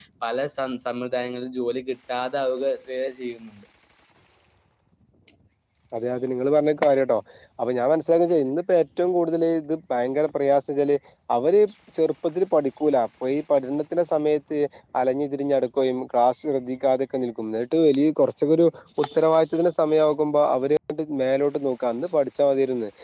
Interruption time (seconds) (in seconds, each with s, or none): none